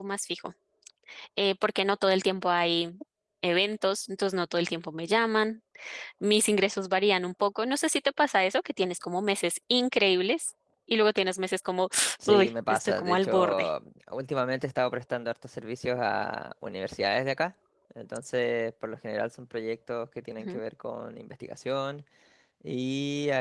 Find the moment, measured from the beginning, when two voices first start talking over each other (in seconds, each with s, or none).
12.3 s